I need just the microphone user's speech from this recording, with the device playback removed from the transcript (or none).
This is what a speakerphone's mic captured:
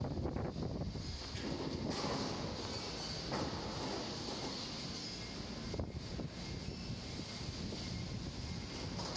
none